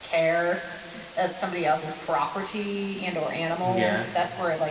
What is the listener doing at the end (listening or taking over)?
listening